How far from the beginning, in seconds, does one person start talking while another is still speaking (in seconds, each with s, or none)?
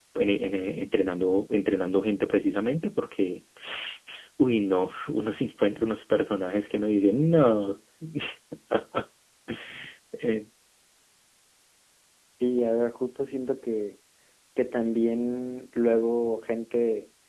none